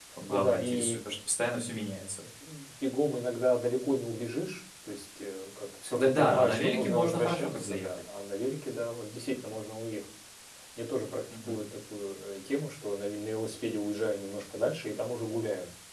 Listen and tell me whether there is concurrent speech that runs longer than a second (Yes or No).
Yes